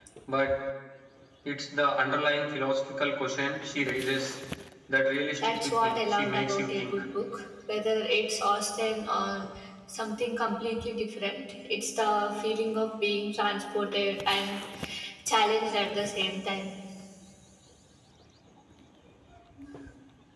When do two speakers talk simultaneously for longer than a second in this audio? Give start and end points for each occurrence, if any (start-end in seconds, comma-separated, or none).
5.4-7.0